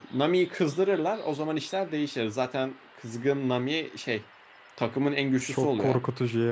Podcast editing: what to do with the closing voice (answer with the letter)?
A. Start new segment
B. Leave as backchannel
A